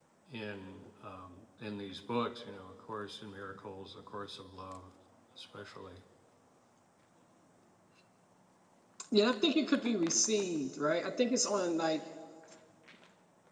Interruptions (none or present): none